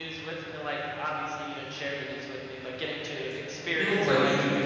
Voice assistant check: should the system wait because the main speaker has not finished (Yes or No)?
No